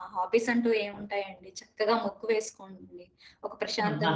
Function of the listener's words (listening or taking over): listening